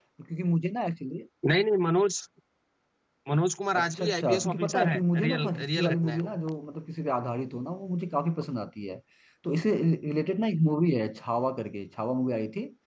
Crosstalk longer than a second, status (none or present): present